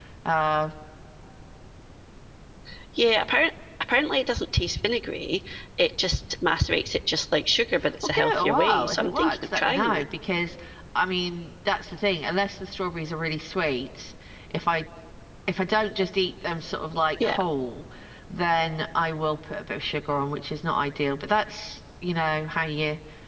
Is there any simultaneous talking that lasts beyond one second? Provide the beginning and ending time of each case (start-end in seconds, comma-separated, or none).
8.0-10.0